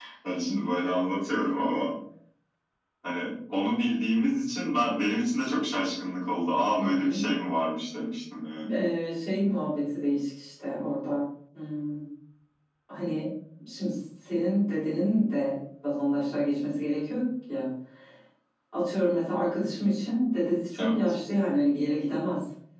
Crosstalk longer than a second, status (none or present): none